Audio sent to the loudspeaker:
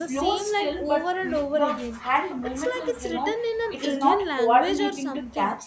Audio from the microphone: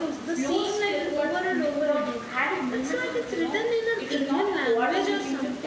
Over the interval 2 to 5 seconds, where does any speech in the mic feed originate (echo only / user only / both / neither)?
echo only